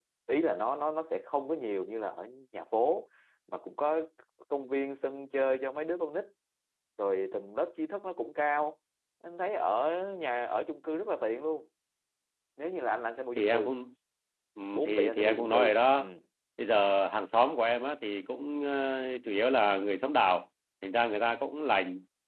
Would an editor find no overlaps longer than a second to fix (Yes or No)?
No